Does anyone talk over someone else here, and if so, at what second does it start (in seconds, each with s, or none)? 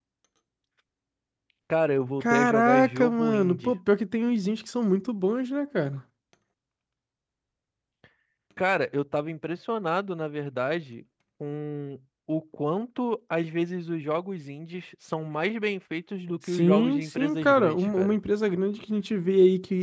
2.2 s